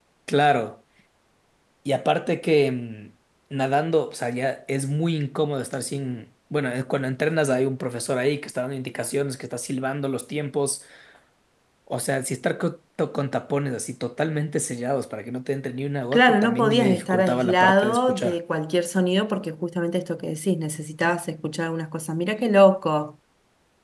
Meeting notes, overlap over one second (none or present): present